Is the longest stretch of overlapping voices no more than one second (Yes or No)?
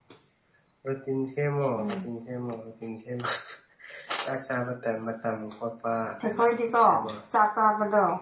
Yes